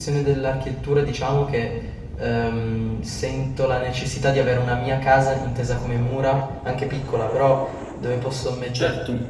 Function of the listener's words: taking over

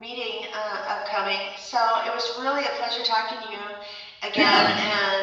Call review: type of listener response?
listening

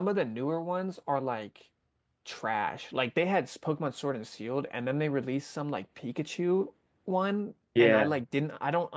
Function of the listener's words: listening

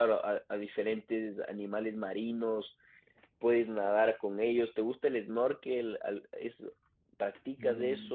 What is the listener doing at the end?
taking over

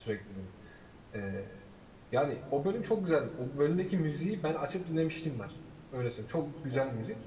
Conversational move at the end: listening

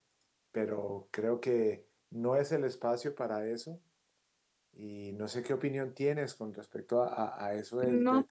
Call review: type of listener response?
listening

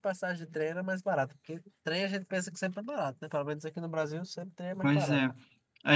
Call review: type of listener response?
taking over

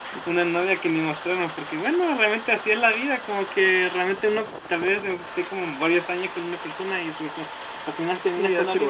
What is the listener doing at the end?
taking over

